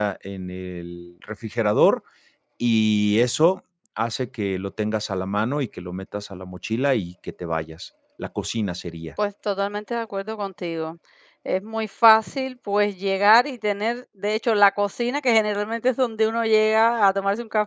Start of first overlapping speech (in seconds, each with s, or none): none